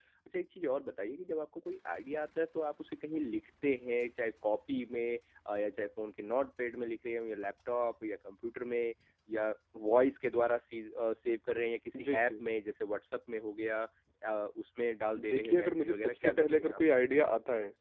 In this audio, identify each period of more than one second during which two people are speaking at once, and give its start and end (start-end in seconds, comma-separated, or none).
15.2-16.8